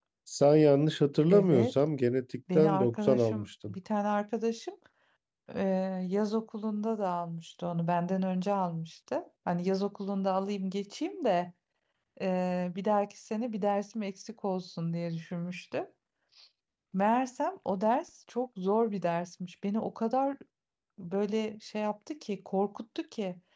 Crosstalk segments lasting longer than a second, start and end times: 2.5-3.8

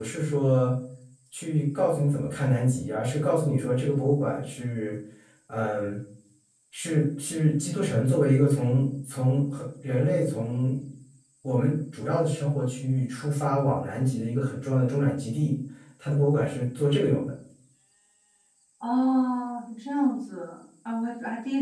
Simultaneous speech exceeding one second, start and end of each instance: none

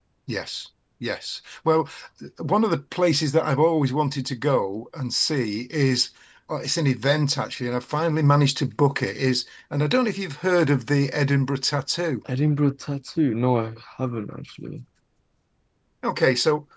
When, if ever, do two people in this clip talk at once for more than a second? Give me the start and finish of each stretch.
none

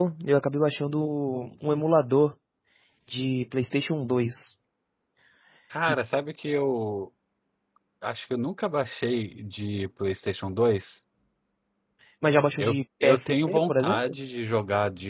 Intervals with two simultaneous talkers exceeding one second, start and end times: 12.6-14.0

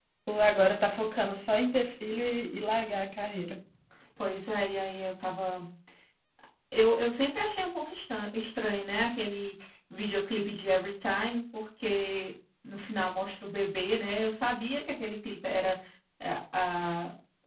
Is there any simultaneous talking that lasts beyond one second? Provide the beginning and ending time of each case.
none

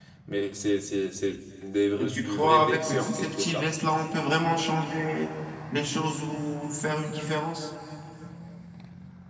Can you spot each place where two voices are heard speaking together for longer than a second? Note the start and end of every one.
2.0-3.6

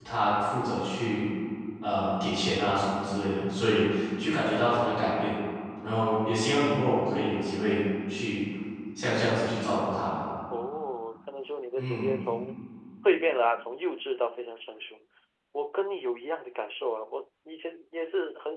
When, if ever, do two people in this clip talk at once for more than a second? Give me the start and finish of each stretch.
none

